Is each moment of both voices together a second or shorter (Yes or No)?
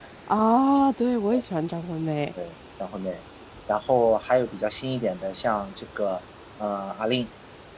Yes